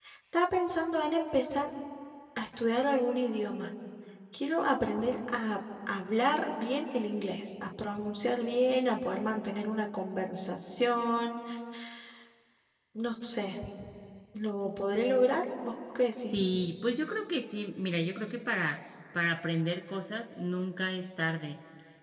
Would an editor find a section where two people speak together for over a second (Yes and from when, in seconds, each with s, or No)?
No